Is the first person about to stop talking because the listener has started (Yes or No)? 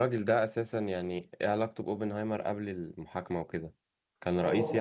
Yes